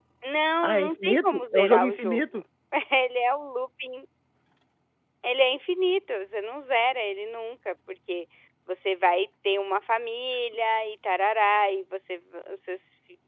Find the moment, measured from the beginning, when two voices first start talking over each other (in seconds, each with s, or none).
0.6 s